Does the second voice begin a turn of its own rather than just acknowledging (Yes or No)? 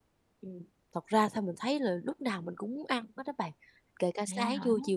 No